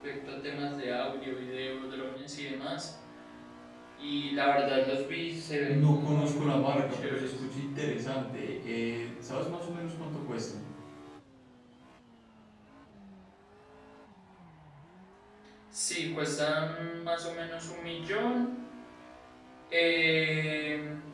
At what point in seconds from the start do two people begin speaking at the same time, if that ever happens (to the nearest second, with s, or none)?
6 s